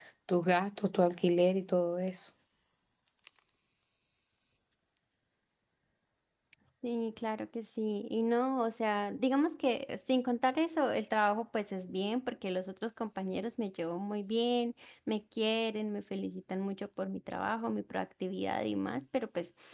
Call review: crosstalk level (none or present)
none